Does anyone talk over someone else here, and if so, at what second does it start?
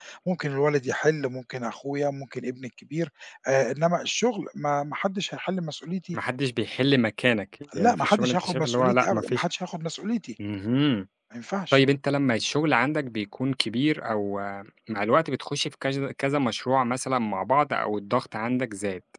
7.7 s

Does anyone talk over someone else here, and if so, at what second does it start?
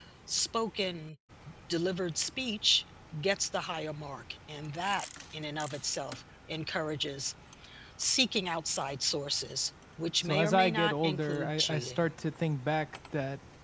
10.2 s

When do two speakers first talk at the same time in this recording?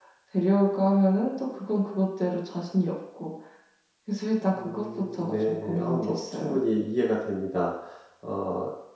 4.6 s

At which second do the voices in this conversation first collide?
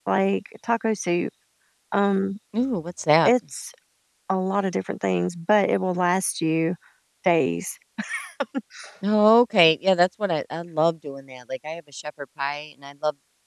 none

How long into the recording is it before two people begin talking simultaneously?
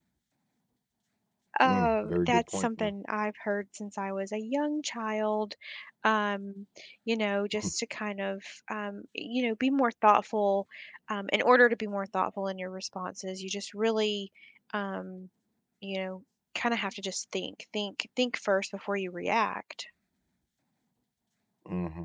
1.6 s

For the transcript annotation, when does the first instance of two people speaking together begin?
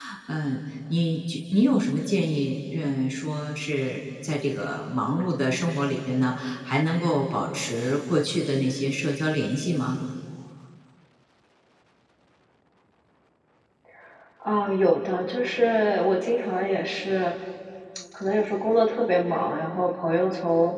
none

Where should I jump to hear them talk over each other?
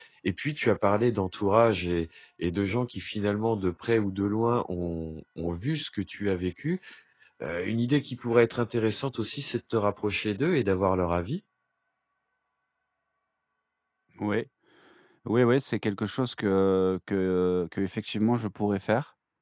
none

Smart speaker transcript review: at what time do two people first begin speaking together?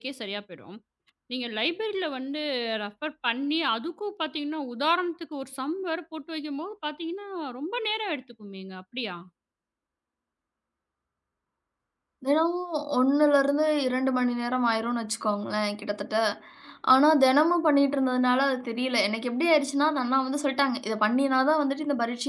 none

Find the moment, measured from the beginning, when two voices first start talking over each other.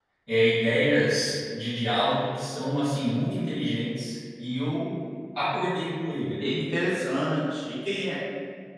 none

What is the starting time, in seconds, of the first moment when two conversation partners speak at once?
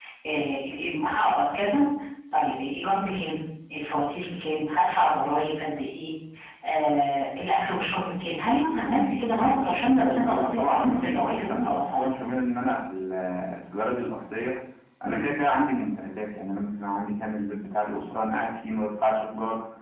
10.2 s

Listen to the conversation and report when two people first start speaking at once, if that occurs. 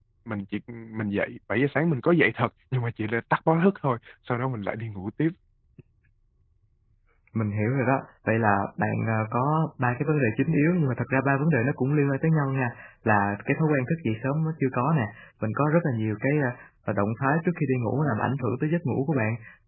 none

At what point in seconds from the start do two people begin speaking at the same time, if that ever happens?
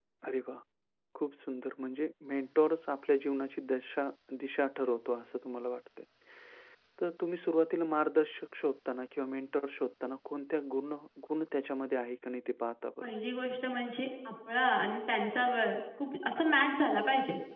none

